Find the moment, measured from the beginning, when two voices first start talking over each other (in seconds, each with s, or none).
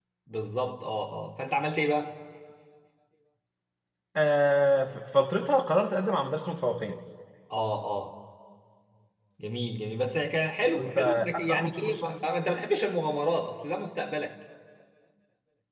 10.8 s